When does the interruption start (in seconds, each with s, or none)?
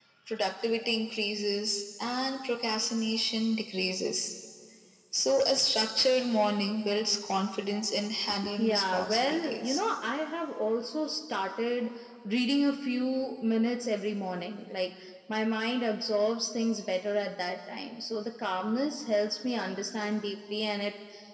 8.6 s